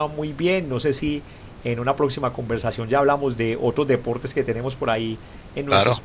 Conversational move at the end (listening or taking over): listening